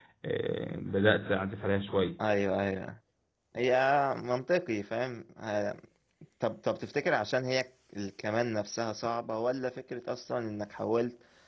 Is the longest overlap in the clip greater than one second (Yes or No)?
No